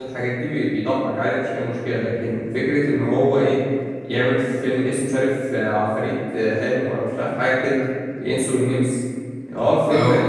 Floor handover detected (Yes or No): Yes